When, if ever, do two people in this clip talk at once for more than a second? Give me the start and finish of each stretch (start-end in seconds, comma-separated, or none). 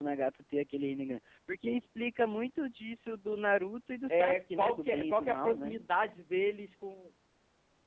4.1-5.8